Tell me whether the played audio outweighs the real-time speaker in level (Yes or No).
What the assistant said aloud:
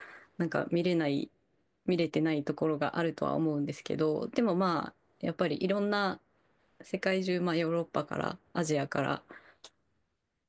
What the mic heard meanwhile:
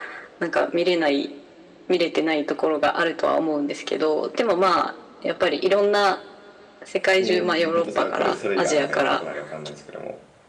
Yes